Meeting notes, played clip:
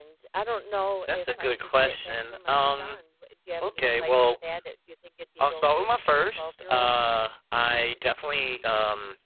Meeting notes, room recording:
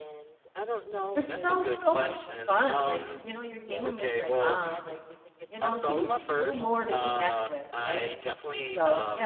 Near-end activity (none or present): present